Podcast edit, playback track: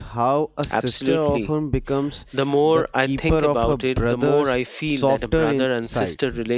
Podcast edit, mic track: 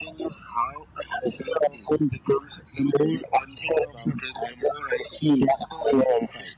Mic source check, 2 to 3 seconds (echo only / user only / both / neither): echo only